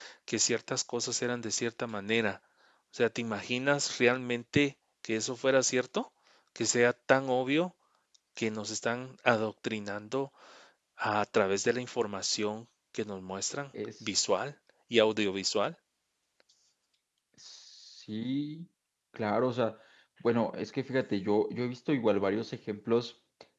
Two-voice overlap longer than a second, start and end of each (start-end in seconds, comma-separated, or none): none